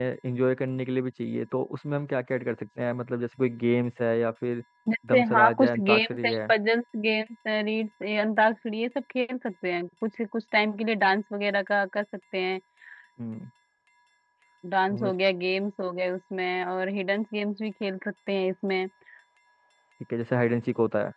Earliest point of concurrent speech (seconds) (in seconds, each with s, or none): 5.1 s